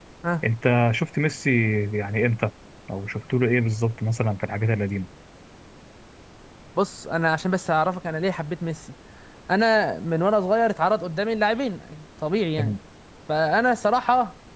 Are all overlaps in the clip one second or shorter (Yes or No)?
Yes